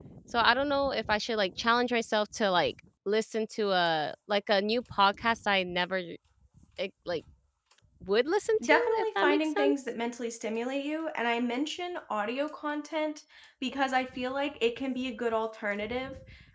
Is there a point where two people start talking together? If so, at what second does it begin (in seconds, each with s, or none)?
8.6 s